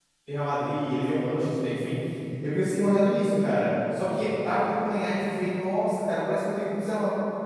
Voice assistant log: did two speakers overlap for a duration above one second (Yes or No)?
No